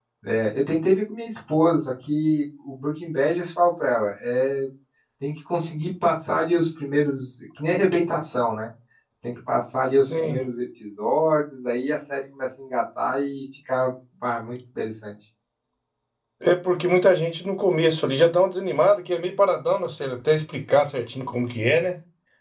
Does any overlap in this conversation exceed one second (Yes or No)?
No